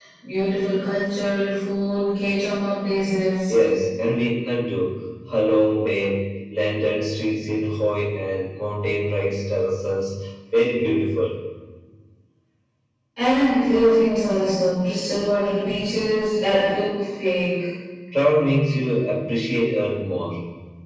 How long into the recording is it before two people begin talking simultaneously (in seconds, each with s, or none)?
none